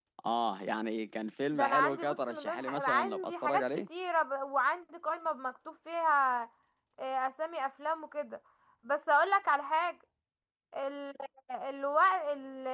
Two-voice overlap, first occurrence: 1.5 s

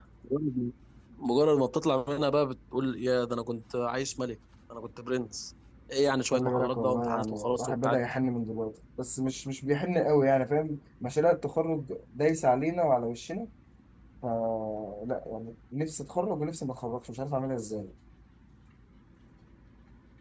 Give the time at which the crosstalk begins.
6.3 s

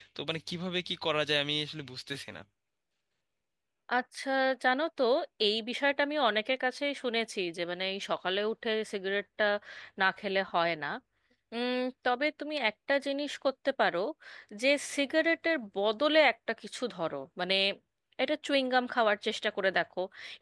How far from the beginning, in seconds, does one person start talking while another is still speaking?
none

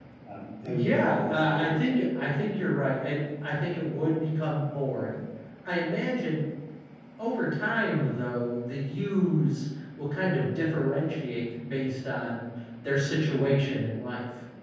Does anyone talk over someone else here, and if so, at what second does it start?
0.6 s

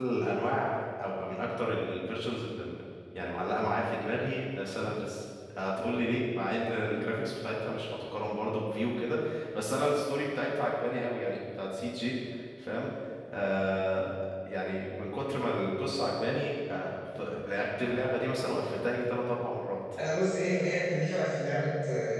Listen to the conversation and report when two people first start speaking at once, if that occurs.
none

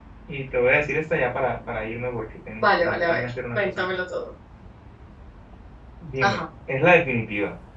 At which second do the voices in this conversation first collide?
2.6 s

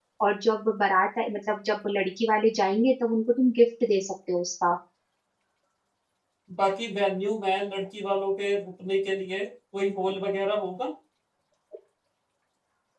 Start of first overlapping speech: none

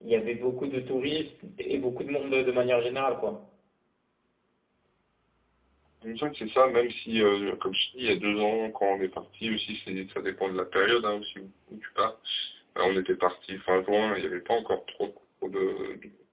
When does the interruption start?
none

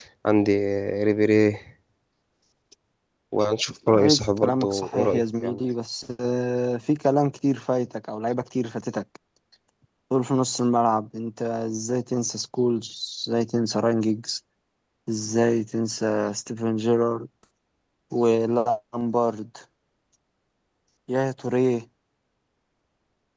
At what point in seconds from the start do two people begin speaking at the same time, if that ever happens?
4.0 s

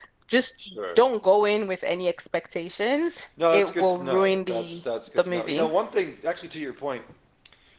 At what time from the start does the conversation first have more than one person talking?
3.4 s

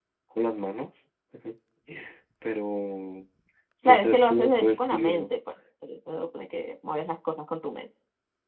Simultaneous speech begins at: 3.9 s

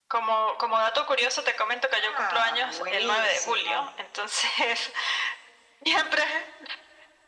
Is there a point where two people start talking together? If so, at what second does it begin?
2.0 s

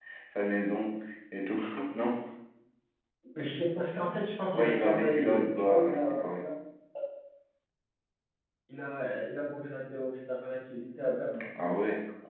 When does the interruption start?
4.5 s

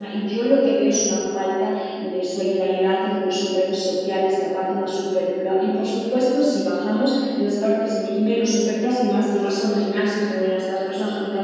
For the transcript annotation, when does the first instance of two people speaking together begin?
none

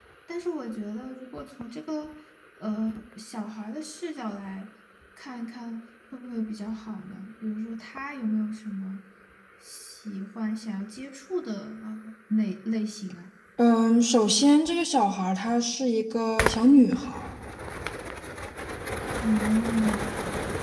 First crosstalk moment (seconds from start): none

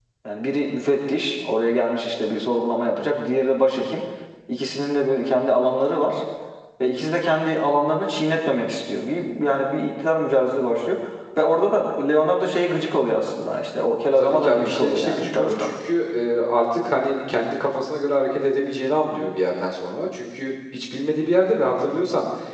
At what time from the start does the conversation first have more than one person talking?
14.2 s

